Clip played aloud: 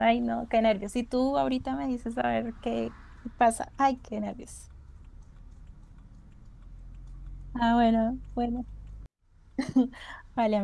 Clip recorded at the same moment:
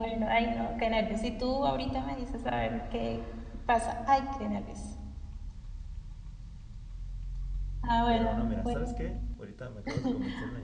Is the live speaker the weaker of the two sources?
Yes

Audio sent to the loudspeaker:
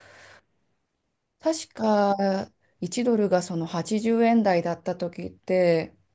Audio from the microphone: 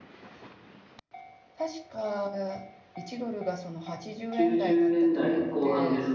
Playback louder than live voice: No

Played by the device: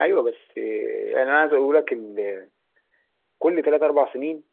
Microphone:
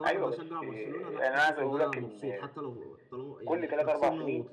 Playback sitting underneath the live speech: No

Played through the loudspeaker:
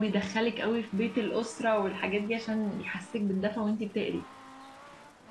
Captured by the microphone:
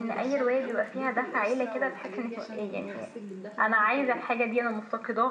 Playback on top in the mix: No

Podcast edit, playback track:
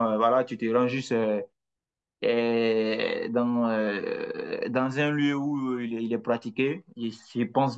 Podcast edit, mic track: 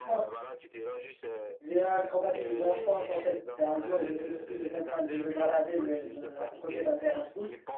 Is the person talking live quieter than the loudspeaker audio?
No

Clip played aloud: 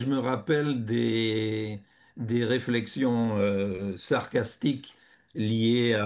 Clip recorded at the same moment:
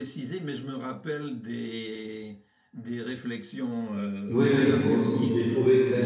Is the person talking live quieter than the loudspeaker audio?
No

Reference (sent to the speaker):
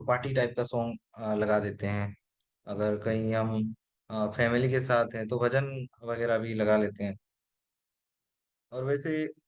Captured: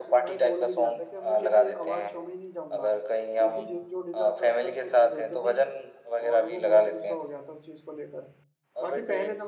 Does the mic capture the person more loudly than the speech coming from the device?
No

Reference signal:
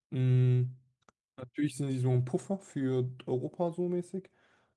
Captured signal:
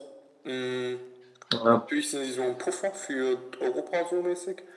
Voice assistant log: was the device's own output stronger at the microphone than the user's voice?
No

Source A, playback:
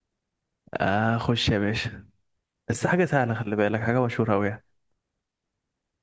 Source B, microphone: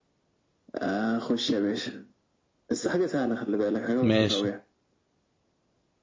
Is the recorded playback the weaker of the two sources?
Yes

